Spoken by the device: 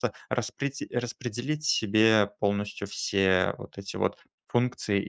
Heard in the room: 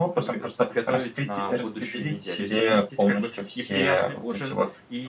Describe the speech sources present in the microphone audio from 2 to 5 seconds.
both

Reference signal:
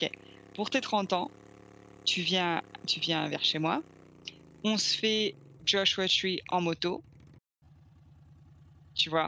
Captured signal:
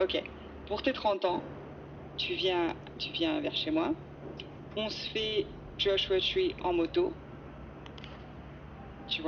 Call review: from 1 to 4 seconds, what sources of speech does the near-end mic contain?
echo only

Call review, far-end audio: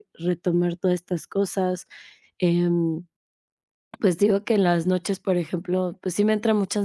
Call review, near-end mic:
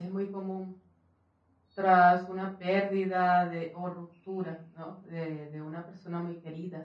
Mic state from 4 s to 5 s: user only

